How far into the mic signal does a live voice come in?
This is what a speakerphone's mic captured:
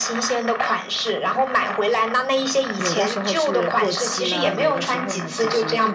3 s

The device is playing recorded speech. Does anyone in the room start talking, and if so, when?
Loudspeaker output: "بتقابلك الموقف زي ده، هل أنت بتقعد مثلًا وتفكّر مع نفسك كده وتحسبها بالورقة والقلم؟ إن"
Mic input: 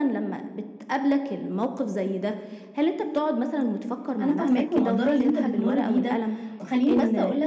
4 s

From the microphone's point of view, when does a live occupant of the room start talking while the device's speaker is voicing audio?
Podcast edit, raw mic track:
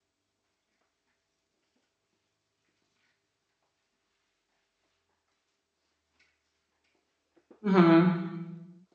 8 s

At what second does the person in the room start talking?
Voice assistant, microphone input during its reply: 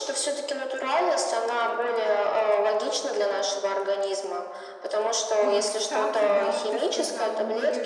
5 s

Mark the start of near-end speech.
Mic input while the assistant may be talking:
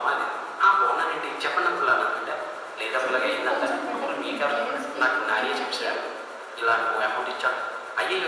3 s

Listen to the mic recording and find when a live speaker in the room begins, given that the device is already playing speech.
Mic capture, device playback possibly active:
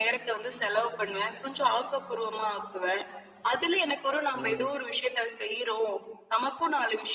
4 s

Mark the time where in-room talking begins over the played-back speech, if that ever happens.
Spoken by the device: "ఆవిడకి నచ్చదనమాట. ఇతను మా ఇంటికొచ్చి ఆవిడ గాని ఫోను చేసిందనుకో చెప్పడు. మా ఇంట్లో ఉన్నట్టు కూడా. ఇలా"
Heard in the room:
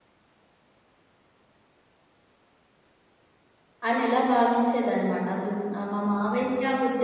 4 s

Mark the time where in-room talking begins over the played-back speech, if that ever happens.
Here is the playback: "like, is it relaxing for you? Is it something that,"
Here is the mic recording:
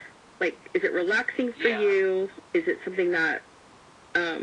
2 s

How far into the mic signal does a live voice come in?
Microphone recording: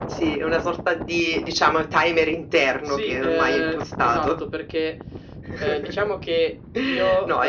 none

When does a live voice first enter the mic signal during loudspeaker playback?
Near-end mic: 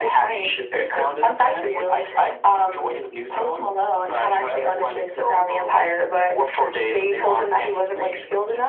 none

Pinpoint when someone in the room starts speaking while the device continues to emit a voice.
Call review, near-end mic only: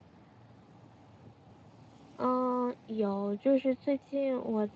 2 s

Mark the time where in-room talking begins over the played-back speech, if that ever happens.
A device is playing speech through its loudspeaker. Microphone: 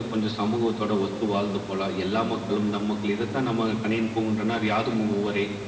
none

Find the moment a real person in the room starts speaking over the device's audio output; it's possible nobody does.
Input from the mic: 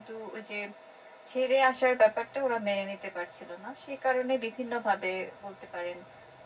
none

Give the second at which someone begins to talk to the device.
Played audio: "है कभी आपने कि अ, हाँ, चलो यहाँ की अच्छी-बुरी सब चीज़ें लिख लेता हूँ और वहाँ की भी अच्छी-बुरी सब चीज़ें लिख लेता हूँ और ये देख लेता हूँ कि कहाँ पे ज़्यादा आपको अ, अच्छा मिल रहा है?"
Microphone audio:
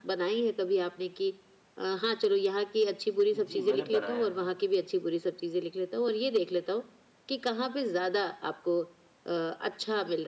3 s

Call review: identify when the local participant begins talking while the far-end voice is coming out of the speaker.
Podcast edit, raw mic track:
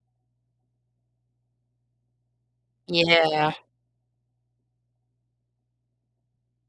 3 s

